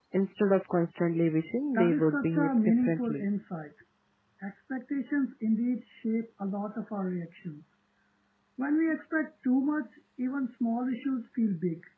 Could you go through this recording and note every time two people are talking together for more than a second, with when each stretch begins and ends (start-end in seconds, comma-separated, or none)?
1.8-3.2